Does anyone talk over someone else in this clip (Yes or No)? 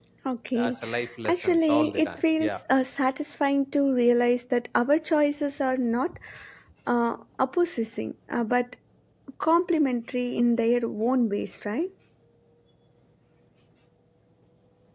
Yes